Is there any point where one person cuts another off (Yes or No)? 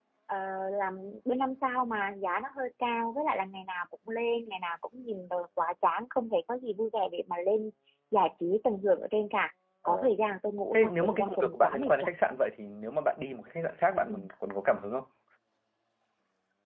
Yes